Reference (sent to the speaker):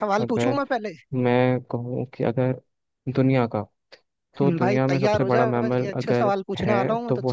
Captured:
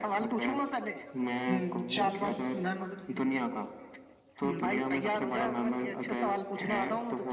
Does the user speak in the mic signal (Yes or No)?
Yes